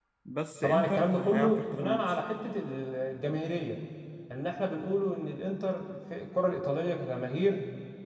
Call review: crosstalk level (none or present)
present